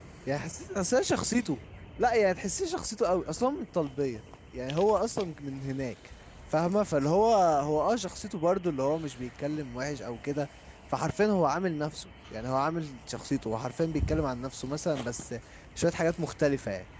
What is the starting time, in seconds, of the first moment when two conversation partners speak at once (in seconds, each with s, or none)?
none